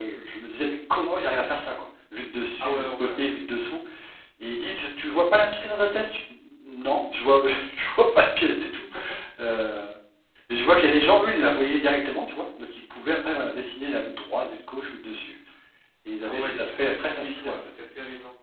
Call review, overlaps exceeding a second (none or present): present